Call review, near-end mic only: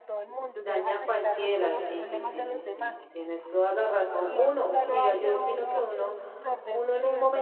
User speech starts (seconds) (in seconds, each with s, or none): 0.6 s